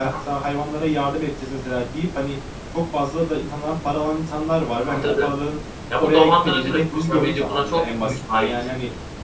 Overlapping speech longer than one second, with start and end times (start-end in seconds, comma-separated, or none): 6.0-8.5